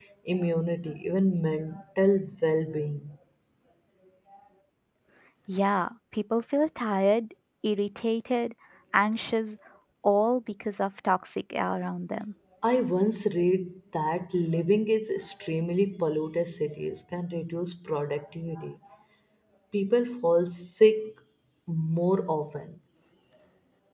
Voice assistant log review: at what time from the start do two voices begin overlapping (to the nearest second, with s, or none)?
none